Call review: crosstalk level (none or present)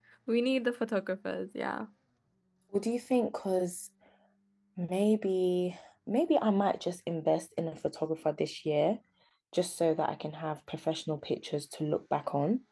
none